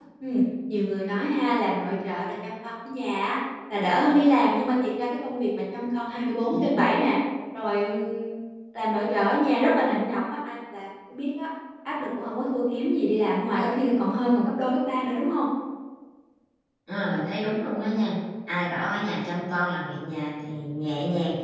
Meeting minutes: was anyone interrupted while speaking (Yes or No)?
No